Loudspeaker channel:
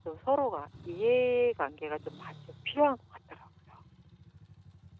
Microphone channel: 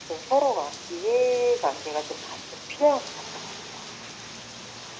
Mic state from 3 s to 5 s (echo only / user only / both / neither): echo only